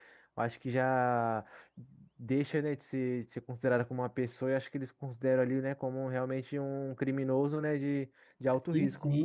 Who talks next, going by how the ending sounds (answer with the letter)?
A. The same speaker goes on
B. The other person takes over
B